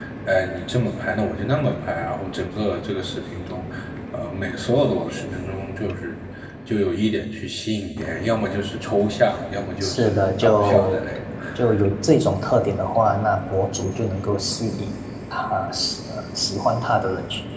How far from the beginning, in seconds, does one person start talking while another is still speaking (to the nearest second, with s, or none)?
10 s